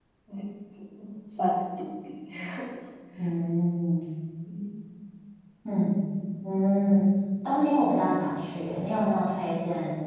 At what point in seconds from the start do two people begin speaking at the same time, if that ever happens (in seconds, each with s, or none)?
none